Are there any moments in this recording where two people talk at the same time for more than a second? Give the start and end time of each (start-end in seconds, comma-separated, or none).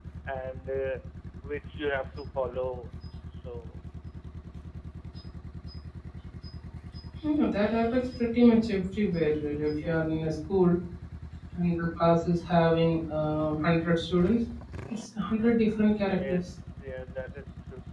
none